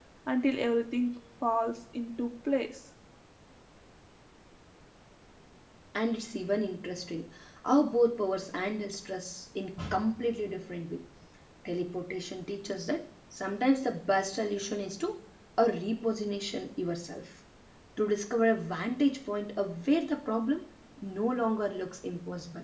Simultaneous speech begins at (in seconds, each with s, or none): none